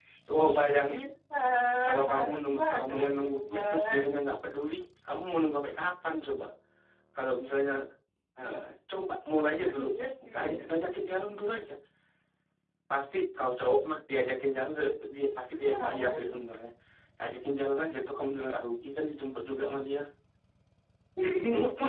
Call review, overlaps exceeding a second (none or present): present